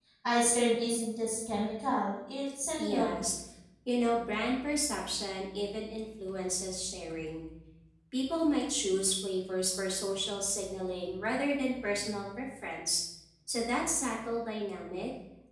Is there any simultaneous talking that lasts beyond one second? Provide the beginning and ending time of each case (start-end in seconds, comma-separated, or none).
none